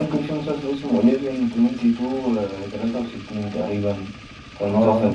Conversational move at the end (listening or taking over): taking over